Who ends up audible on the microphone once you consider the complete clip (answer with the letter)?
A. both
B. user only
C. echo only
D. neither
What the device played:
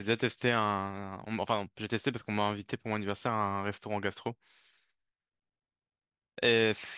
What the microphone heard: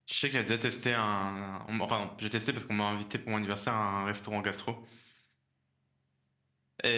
C